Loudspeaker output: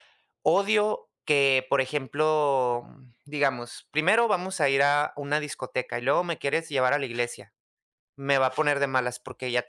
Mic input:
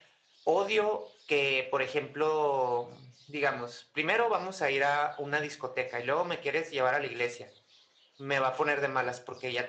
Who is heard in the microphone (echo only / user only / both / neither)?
echo only